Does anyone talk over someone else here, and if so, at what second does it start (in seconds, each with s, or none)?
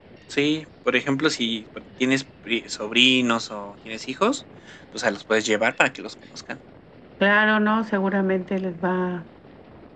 none